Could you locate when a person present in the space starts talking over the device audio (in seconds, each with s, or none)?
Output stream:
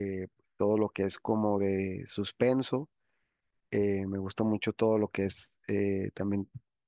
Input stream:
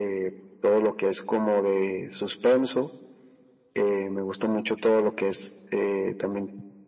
none